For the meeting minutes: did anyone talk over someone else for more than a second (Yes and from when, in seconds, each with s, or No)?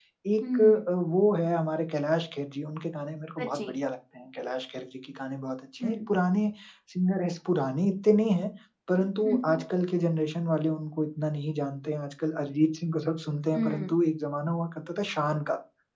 No